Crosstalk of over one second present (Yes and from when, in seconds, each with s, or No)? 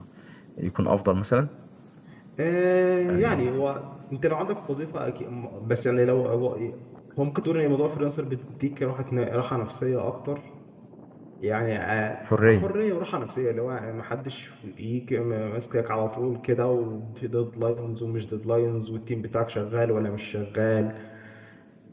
No